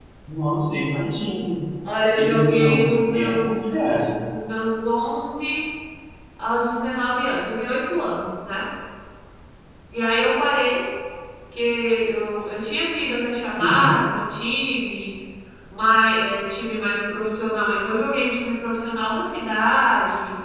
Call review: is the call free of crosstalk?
No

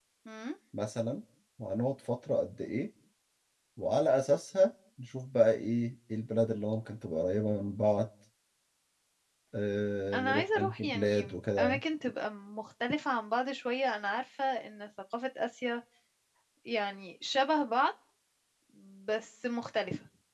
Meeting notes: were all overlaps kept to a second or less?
No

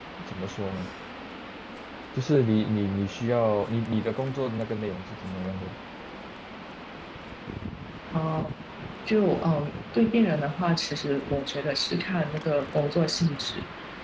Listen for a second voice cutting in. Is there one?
No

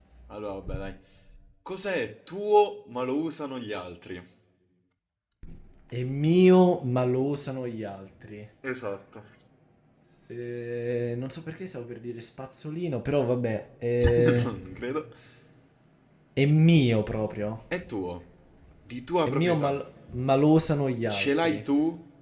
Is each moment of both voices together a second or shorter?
Yes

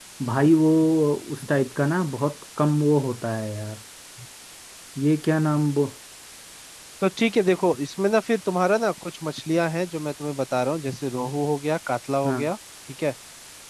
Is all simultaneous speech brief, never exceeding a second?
Yes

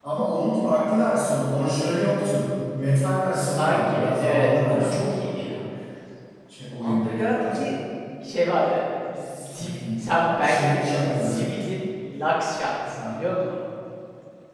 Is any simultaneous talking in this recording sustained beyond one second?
Yes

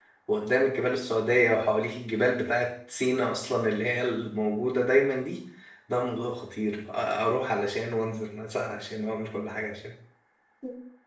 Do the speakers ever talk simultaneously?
No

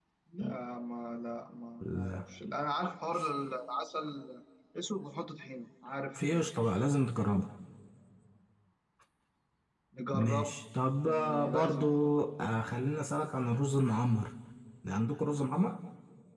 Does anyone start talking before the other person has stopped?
Yes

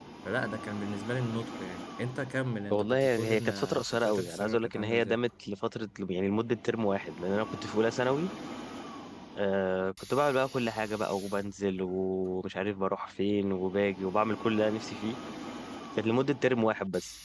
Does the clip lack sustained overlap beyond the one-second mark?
No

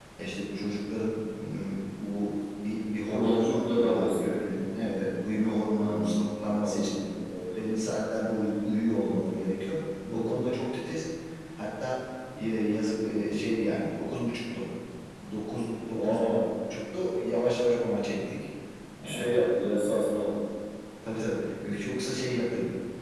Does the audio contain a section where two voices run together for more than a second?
Yes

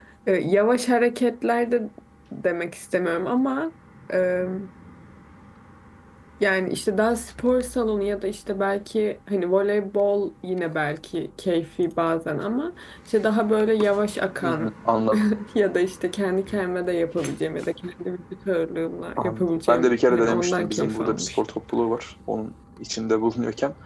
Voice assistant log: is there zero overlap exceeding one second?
No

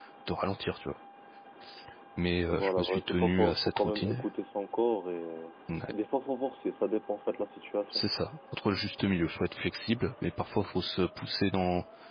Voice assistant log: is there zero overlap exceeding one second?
No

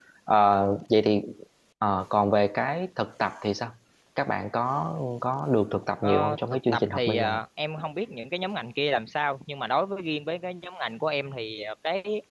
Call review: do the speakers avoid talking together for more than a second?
No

